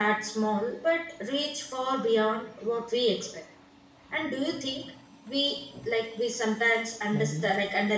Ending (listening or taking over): listening